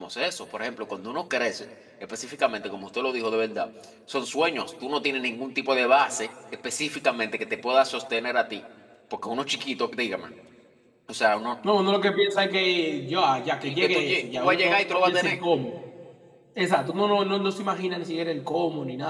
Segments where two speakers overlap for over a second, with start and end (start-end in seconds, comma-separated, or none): 13.6-15.4